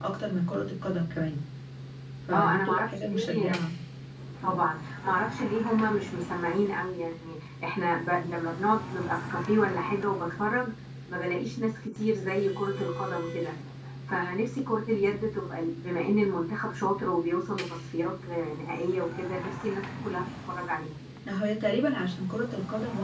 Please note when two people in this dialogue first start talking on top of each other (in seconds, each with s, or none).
2.3 s